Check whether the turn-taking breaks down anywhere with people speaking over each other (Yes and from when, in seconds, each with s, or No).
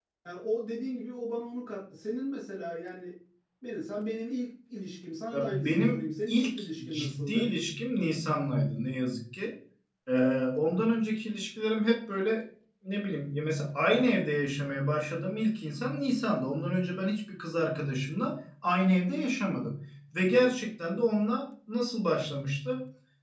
Yes, from 5.3 s